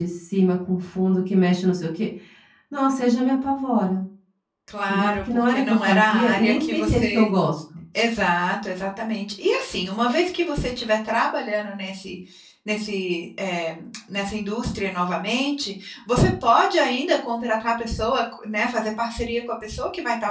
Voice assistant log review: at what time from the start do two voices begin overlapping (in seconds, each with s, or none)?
4.9 s